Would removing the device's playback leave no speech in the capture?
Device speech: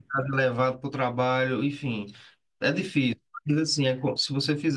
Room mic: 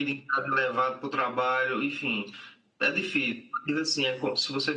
Yes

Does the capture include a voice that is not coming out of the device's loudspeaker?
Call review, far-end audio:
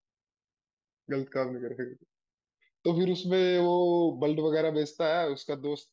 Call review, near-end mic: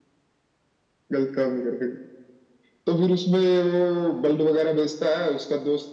No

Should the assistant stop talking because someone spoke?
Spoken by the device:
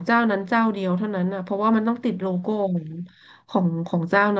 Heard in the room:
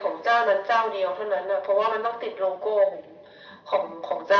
No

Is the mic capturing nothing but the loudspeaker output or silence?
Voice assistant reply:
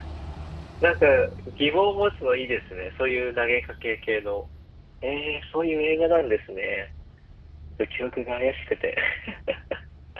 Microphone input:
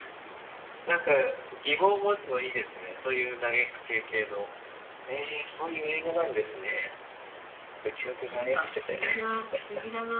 No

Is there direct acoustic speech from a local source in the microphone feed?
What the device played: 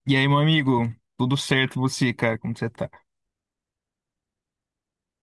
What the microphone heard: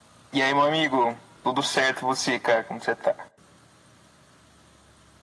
No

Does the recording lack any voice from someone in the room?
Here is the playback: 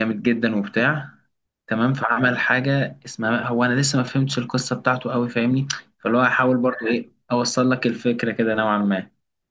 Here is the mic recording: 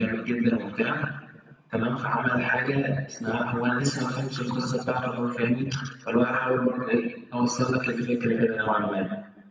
Yes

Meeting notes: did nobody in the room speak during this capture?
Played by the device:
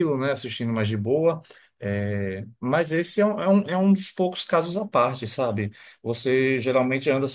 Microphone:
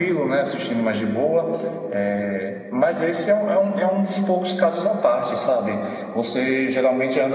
Yes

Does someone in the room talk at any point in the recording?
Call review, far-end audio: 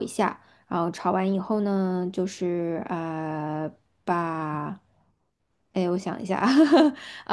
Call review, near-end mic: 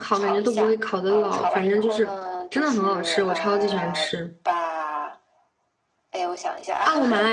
Yes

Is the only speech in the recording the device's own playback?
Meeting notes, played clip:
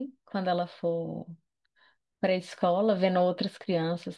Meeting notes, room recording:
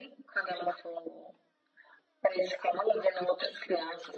Yes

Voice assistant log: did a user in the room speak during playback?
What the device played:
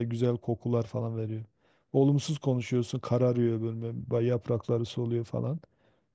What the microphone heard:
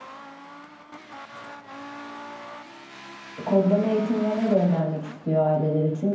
Yes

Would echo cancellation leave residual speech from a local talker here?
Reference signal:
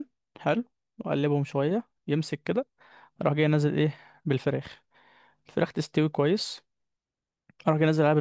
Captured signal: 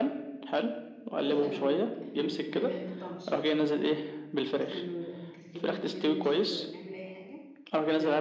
Yes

